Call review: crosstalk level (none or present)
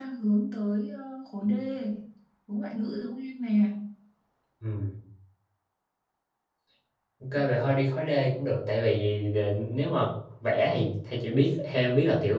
none